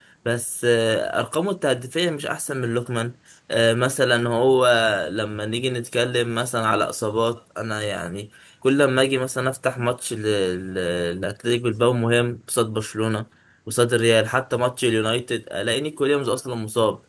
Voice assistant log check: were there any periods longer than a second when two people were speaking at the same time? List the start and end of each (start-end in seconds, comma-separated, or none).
none